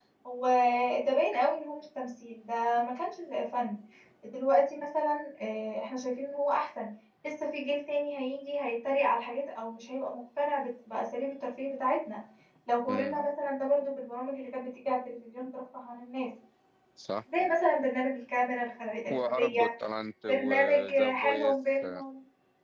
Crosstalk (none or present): present